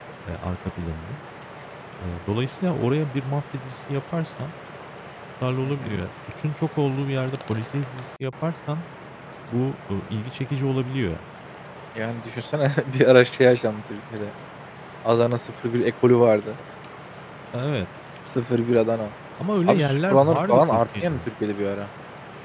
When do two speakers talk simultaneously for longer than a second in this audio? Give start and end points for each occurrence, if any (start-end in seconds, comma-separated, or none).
19.7-21.3